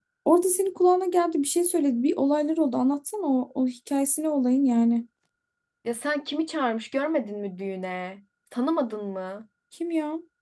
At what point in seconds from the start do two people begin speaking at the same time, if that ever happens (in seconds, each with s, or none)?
none